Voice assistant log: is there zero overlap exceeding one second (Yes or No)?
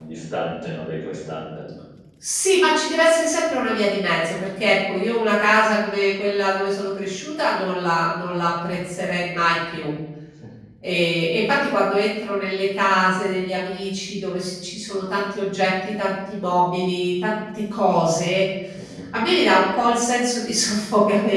Yes